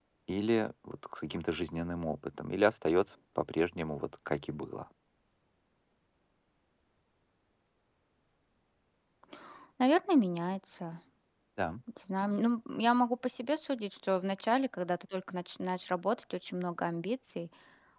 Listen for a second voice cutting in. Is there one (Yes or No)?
No